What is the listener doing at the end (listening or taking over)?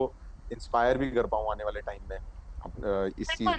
taking over